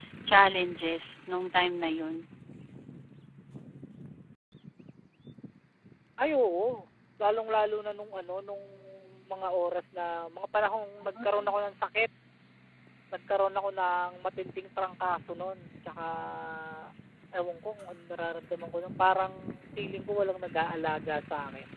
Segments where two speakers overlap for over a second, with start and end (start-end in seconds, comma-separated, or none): none